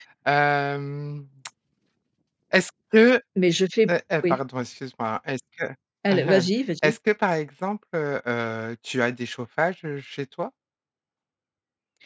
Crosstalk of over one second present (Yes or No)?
No